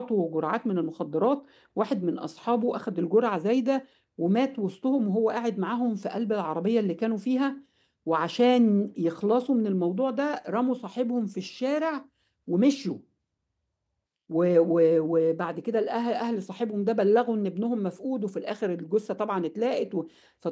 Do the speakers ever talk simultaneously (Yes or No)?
No